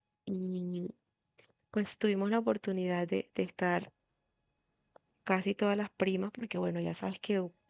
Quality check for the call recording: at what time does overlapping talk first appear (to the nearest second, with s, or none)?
none